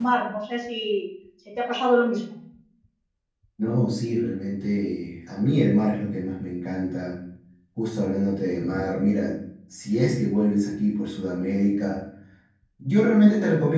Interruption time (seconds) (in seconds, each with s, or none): none